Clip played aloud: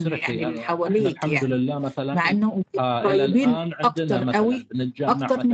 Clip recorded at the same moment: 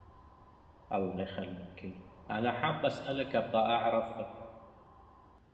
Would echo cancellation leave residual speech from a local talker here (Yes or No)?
Yes